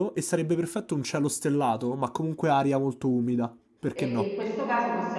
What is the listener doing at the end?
taking over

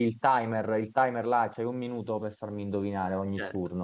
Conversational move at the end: taking over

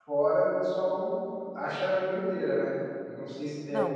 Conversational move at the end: taking over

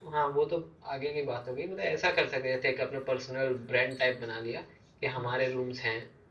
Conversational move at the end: listening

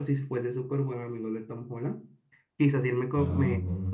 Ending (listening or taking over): listening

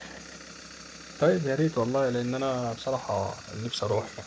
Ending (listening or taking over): taking over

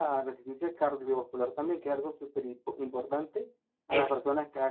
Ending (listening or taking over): listening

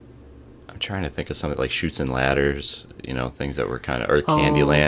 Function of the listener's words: taking over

